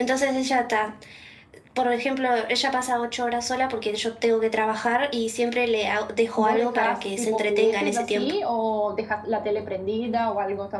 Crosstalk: present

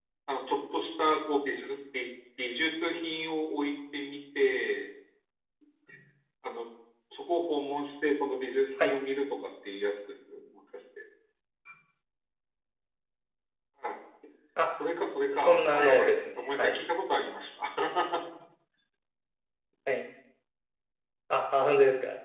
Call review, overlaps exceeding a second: present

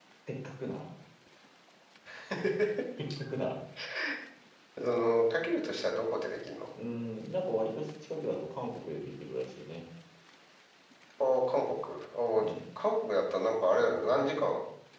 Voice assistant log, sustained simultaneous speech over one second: none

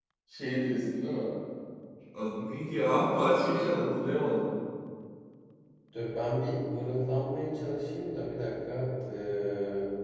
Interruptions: none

